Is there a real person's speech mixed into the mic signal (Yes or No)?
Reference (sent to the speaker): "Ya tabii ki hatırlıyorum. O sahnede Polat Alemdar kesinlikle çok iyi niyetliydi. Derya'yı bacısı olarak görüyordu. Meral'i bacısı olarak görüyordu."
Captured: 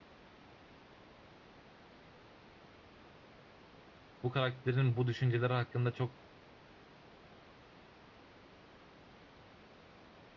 Yes